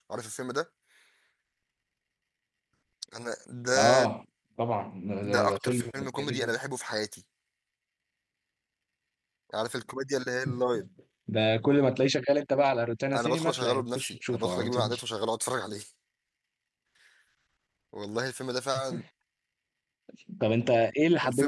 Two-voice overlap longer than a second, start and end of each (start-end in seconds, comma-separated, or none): 5.2-6.5, 13.1-15.0